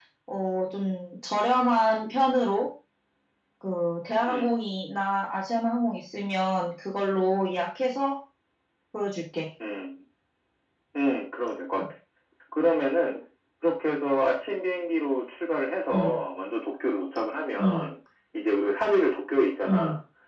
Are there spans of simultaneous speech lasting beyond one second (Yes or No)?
No